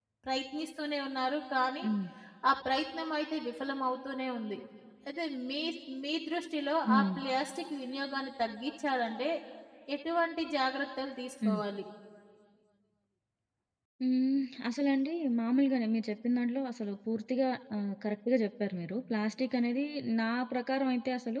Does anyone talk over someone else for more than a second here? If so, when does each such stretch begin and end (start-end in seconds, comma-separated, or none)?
none